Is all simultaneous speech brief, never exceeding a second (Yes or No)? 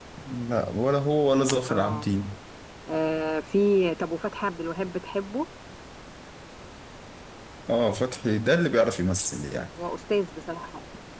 Yes